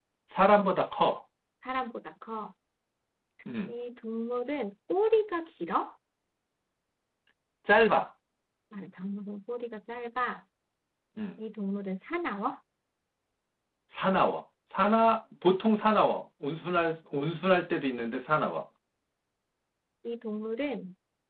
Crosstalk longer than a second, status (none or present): none